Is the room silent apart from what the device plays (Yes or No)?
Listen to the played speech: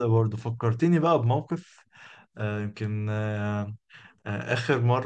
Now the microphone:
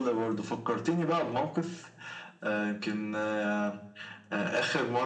Yes